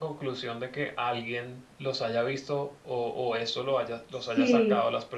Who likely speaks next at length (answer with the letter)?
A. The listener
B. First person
A